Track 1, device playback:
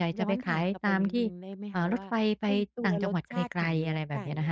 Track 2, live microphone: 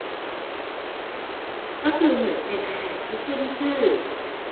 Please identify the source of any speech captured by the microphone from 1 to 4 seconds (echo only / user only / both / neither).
user only